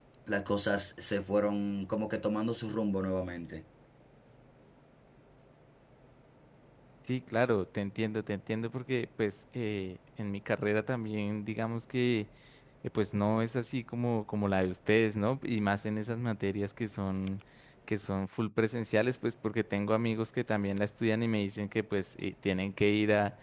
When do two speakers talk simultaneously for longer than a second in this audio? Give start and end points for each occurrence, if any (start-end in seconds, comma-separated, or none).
none